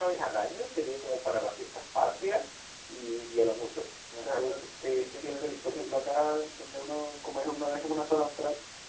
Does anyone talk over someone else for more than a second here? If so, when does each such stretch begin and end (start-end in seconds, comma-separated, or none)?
4.2-6.0